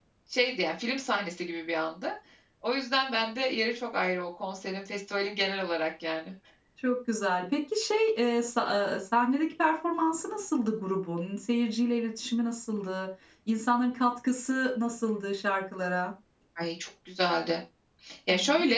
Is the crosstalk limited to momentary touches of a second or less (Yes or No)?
Yes